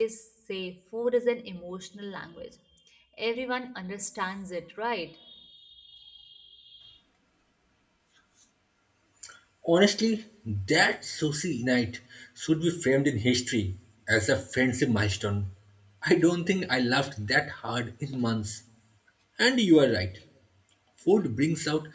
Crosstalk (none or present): none